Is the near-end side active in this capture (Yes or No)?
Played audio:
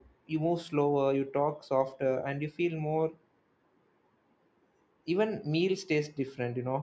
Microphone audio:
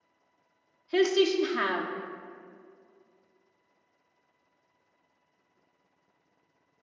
Yes